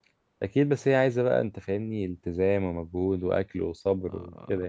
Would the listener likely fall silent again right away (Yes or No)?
No